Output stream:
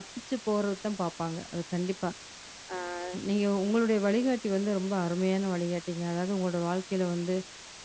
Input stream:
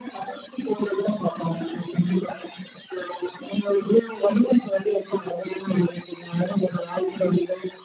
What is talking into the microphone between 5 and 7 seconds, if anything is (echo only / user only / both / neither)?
echo only